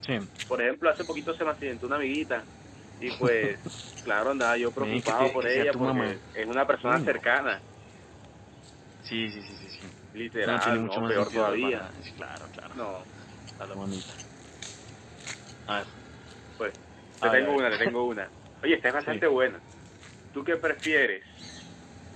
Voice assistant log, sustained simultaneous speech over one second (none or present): present